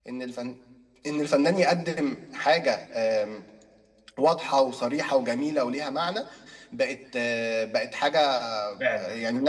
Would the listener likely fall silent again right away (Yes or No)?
Yes